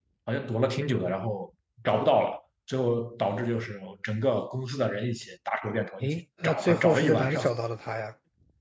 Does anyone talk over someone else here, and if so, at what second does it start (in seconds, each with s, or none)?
6.0 s